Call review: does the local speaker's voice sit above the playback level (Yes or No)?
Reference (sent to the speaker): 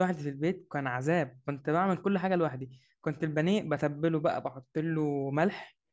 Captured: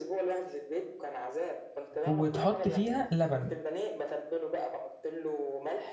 Yes